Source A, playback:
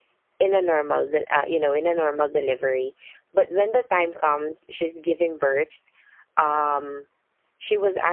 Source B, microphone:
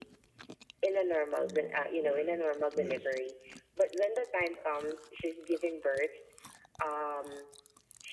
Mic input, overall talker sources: both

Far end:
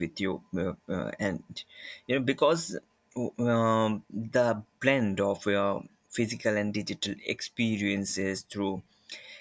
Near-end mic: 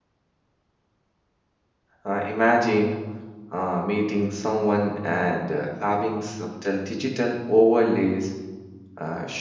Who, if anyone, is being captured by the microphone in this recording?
user only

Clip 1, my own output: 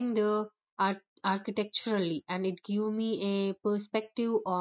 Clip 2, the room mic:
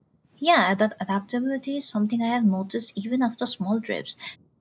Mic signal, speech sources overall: user only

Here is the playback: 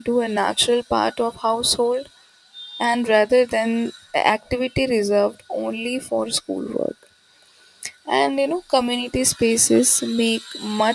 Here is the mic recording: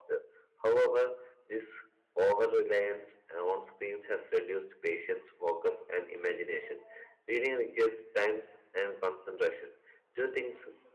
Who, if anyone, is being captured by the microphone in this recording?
user only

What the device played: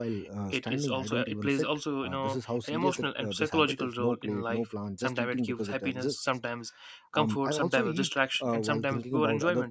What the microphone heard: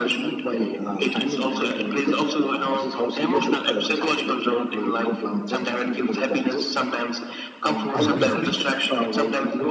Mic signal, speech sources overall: both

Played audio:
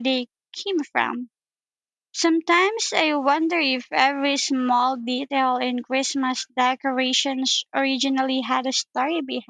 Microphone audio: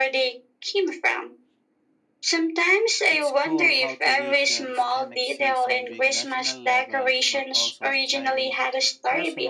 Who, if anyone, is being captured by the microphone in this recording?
both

